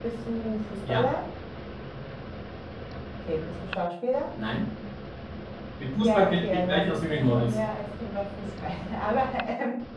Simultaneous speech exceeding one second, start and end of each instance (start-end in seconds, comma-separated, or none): 6.0-7.5